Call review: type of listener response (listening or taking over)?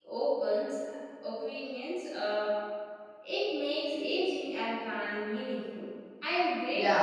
taking over